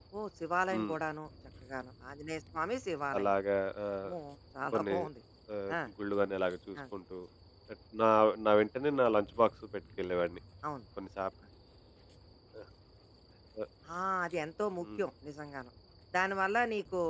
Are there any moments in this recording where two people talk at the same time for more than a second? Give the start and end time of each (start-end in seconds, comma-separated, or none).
none